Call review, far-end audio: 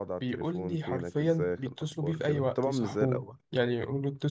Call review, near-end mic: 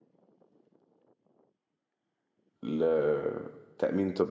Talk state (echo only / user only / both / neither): user only